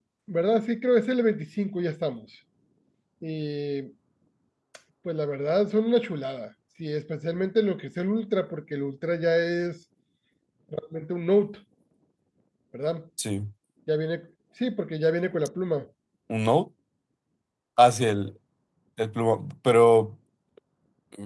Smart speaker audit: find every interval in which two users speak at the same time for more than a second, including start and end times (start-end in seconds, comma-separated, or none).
none